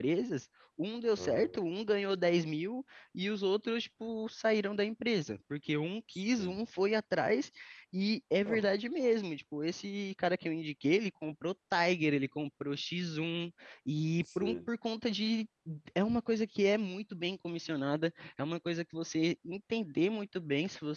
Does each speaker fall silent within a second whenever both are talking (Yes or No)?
Yes